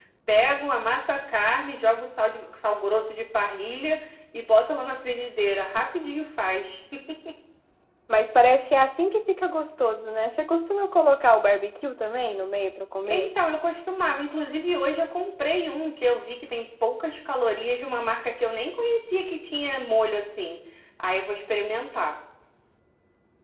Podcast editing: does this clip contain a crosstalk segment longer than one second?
No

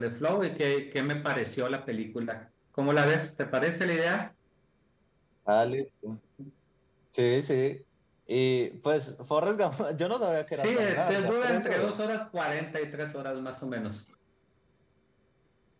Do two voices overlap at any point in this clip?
Yes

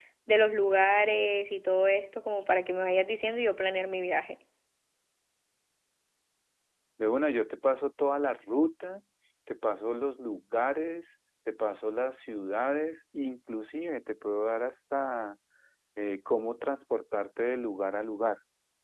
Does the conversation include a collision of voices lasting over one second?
No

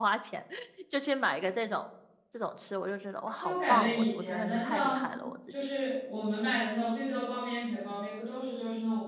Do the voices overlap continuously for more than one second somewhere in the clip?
Yes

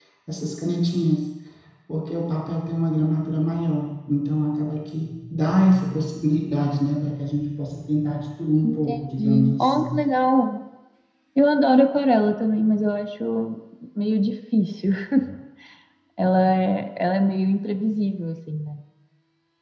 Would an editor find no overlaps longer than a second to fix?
No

